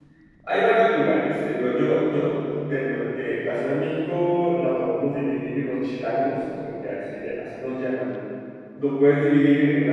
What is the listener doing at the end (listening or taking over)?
listening